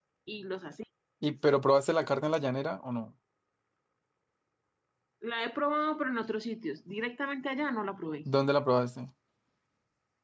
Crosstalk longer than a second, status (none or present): none